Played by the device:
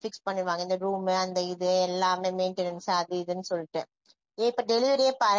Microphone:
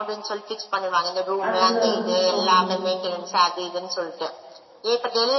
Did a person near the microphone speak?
Yes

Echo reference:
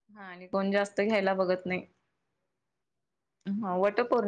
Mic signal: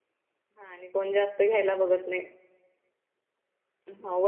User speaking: No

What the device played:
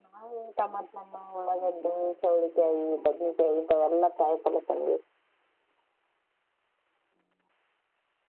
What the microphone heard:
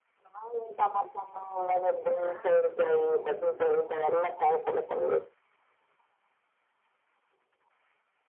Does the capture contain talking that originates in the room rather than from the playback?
Yes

